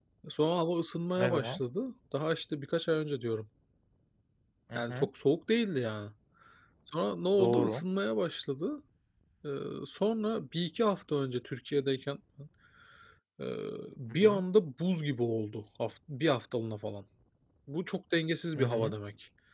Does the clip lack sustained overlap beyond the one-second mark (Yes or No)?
Yes